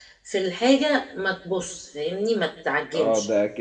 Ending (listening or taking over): taking over